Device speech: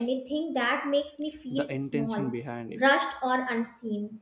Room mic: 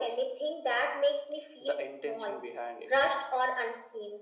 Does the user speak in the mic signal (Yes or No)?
No